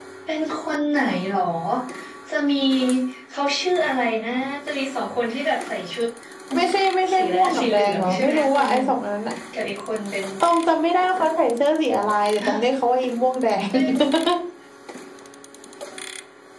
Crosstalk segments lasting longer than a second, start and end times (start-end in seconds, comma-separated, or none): 7.1-8.8